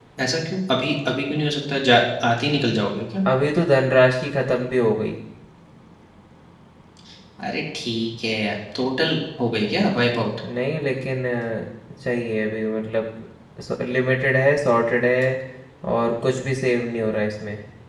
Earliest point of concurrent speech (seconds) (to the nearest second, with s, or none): none